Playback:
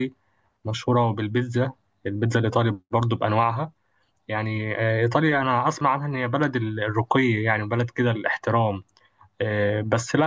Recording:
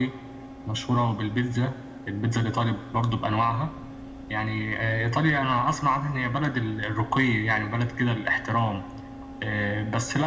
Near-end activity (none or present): none